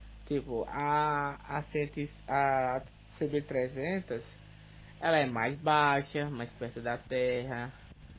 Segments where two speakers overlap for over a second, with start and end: none

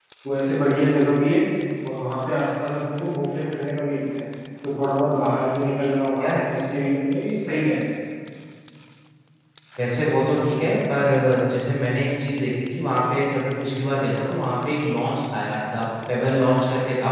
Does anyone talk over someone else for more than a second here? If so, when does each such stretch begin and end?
none

